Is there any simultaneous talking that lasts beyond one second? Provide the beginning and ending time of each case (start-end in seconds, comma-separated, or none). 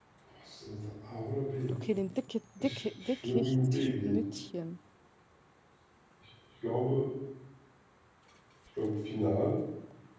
2.6-4.2